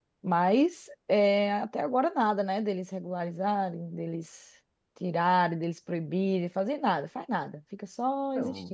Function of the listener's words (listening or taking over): taking over